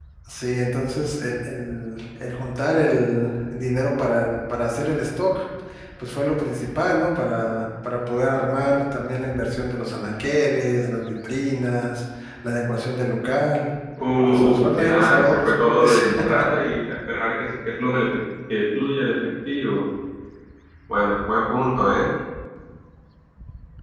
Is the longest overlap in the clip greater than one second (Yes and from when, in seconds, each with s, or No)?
Yes, from 14.3 s